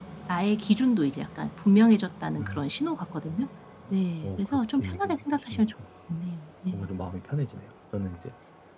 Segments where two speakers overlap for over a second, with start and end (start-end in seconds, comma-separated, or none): 4.2-5.6